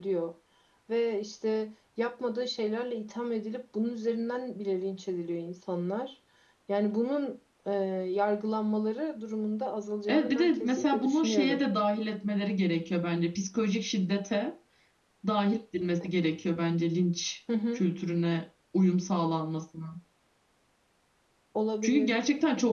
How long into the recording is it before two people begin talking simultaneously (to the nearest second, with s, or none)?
10 s